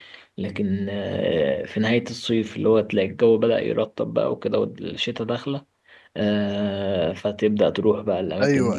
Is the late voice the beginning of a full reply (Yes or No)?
Yes